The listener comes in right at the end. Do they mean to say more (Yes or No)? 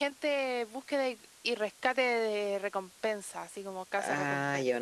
Yes